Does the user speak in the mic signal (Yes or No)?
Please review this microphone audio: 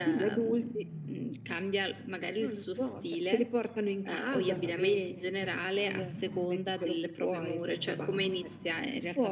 No